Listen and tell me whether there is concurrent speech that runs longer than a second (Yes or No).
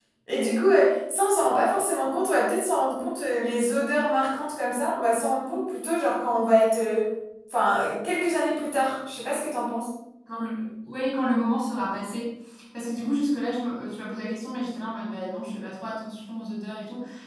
No